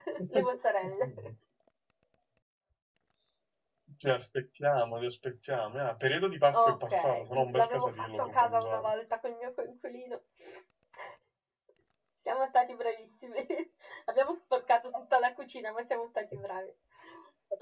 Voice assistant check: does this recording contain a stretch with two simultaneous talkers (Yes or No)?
Yes